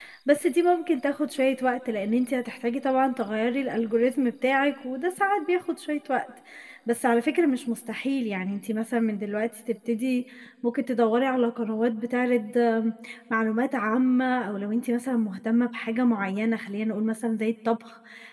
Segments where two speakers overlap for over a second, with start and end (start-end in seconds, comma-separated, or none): none